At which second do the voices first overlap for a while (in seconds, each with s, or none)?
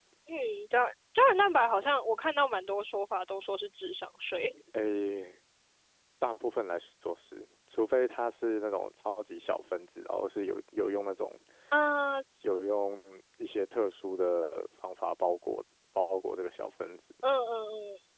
none